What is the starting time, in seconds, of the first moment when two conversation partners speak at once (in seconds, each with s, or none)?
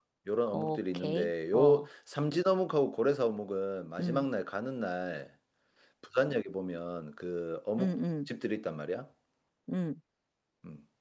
0.5 s